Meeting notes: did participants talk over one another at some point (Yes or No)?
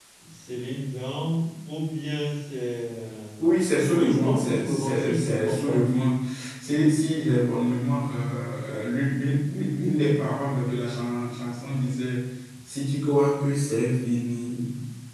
Yes